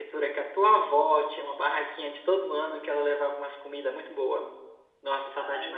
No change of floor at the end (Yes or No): No